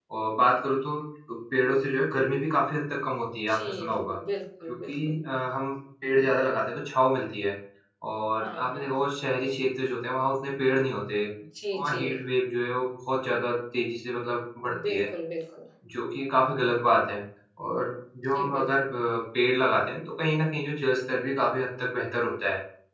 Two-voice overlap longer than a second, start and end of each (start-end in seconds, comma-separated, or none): none